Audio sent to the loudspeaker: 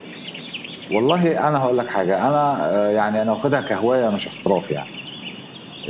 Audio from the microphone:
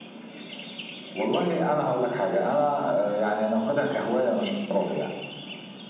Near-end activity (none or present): none